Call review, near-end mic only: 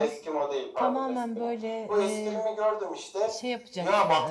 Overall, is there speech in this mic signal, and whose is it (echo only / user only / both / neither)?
both